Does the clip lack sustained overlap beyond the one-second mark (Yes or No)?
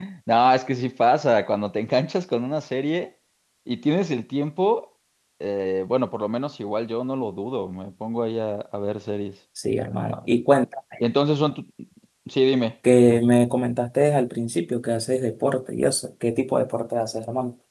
Yes